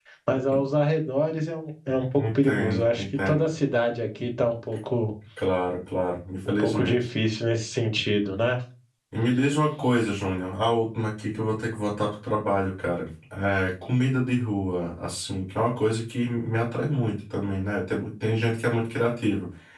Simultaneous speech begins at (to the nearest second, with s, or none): 2 s